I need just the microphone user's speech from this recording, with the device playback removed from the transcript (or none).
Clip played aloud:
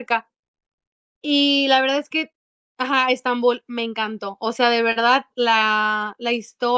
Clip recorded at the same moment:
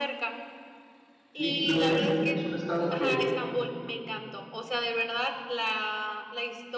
Sí, Nuevo México es un estado que